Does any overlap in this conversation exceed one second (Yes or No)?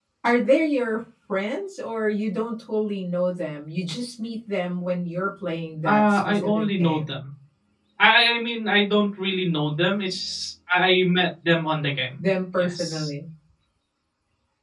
Yes